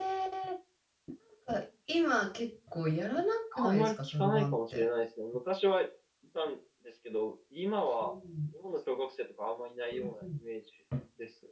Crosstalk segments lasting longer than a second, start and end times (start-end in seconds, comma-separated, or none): 3.5-4.9